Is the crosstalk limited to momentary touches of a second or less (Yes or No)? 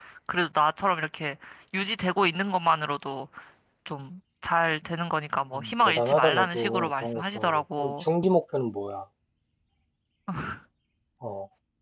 No